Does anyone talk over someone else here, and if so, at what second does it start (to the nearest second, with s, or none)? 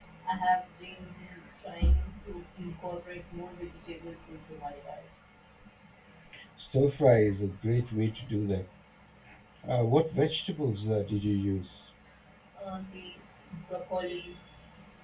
none